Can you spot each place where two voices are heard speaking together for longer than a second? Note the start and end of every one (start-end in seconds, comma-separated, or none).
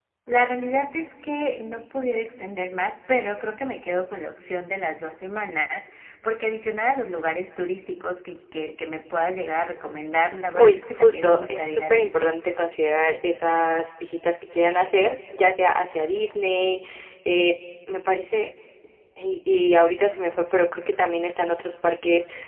10.6-12.3